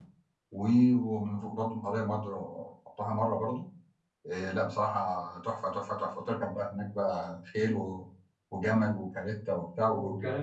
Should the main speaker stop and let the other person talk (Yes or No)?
Yes